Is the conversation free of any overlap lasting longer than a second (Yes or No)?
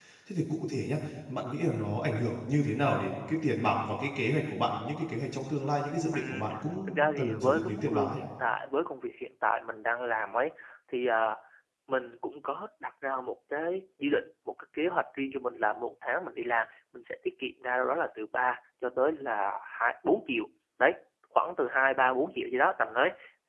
No